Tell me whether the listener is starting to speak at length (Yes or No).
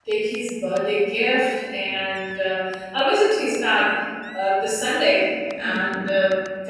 No